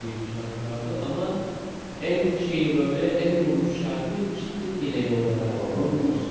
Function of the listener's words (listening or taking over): taking over